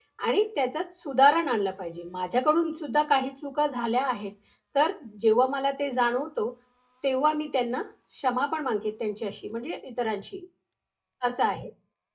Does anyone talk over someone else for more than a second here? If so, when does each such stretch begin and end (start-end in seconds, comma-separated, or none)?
none